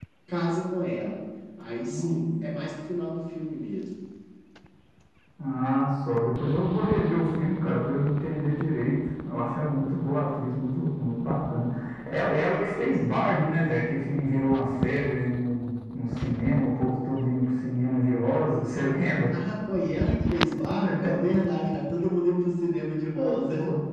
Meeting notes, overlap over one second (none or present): none